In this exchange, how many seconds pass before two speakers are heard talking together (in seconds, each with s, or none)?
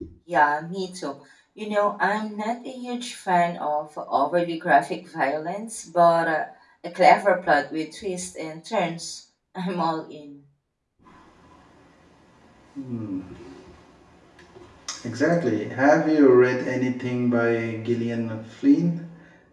none